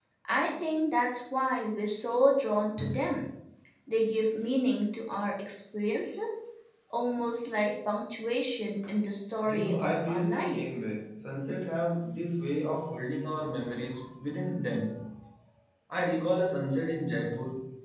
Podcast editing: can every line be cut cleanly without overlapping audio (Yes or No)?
No